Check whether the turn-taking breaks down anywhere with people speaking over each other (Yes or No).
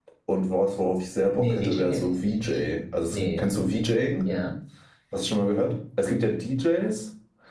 Yes